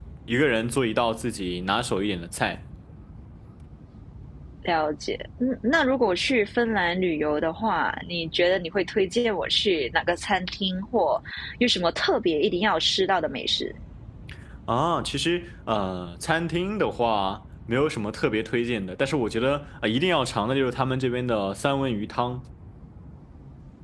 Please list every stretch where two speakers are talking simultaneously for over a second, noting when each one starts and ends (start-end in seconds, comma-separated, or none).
none